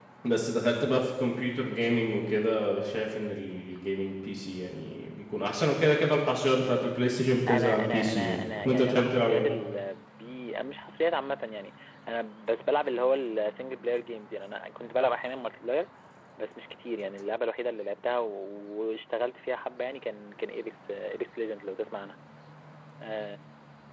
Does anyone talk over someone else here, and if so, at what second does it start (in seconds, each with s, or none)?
7.5 s